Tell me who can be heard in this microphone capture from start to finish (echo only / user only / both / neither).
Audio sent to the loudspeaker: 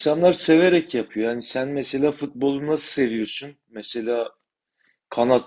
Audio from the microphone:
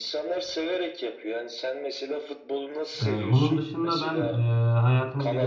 both